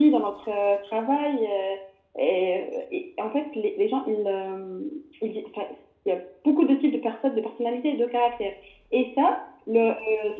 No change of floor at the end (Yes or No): Yes